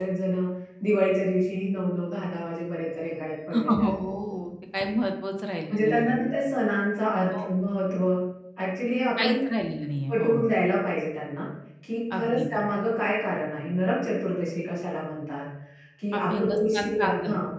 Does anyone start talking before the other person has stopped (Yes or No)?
Yes